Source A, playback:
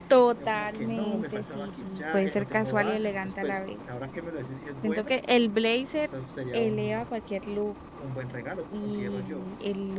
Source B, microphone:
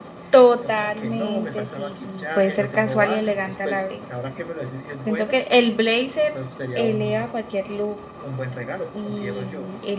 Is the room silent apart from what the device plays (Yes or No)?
Yes